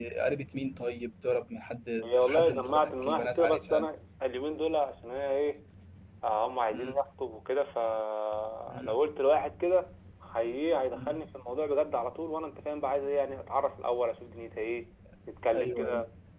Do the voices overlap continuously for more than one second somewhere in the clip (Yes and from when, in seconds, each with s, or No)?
Yes, from 2.0 s